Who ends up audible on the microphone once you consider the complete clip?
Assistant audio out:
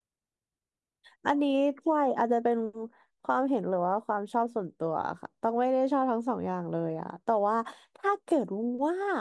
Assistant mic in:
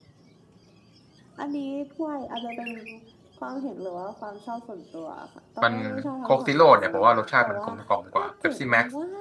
both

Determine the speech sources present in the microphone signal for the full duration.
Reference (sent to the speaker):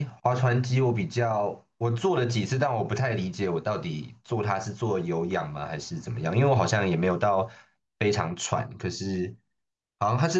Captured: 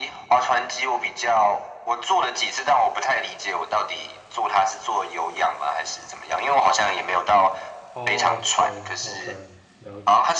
both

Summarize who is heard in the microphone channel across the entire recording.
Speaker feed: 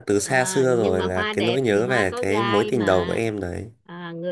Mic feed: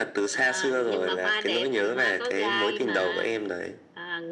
echo only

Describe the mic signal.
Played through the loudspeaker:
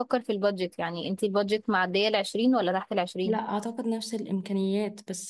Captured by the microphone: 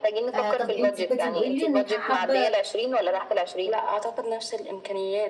both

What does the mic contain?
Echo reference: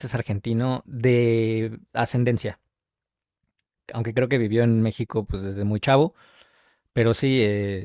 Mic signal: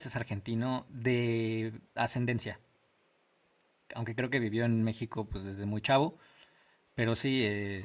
echo only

